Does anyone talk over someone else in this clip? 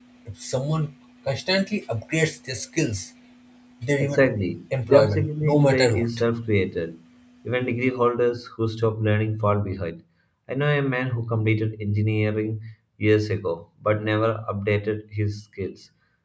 Yes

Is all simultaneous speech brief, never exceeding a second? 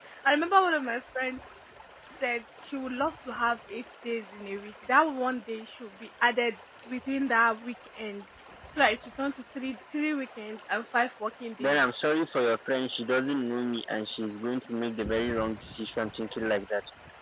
Yes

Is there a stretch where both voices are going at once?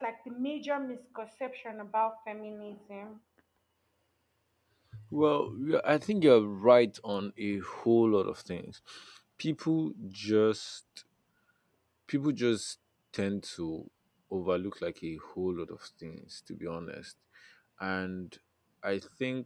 No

